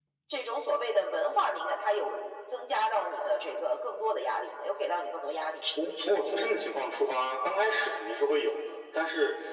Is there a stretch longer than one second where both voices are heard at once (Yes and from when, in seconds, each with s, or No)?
No